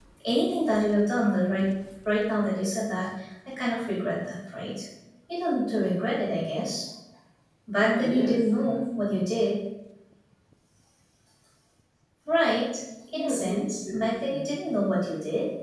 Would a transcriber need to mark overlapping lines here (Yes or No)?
Yes